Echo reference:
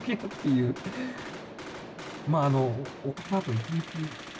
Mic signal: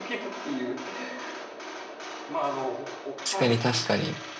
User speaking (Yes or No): Yes